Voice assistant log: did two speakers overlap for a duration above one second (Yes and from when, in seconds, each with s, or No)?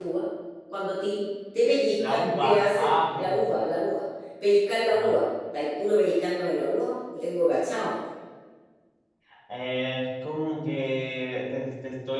Yes, from 2.1 s